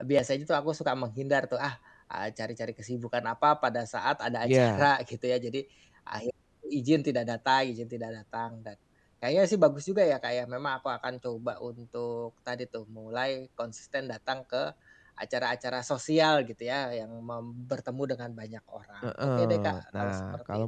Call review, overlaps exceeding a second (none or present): present